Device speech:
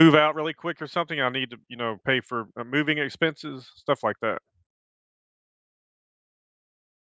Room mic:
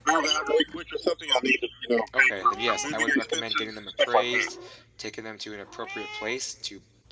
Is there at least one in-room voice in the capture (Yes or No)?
Yes